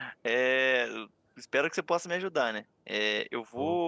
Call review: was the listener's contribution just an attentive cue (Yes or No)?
Yes